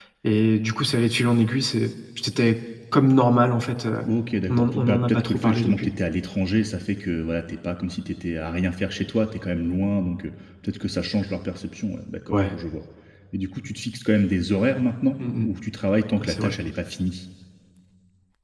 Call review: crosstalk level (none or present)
present